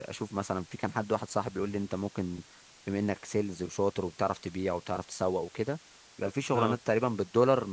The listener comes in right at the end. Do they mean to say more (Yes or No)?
No